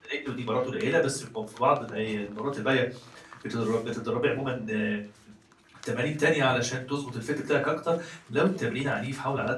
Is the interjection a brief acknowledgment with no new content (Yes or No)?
Yes